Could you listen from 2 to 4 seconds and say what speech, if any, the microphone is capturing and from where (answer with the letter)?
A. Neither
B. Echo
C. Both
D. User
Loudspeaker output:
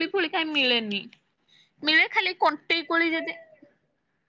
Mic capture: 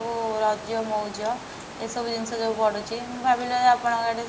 D